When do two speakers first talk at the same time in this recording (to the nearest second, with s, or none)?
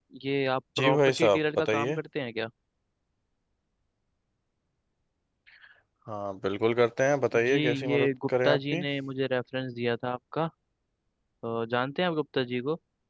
1 s